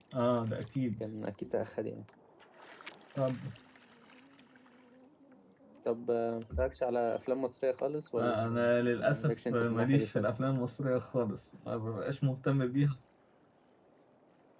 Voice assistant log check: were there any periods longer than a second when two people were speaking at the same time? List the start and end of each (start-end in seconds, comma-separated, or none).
8.2-10.3